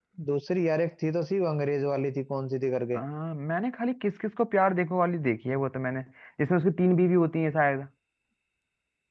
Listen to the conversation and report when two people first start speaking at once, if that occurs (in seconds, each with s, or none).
none